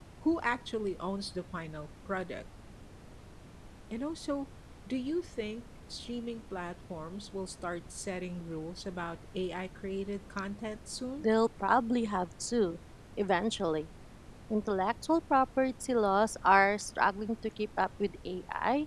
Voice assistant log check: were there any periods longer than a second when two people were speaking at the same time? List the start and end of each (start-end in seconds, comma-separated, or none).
none